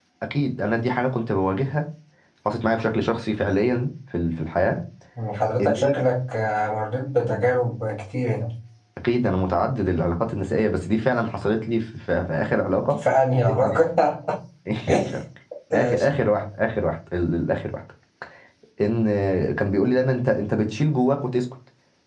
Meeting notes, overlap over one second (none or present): none